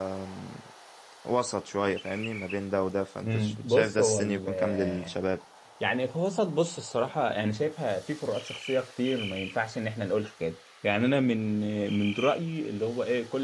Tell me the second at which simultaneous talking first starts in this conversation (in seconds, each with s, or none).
3.2 s